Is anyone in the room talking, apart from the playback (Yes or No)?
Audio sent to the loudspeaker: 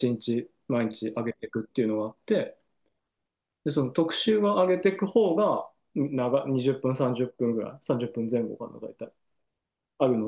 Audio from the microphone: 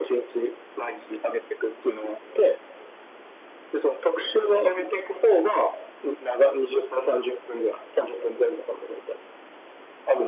No